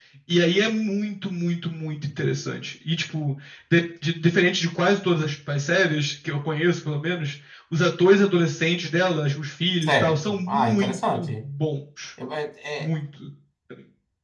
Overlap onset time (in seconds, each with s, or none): 9.8 s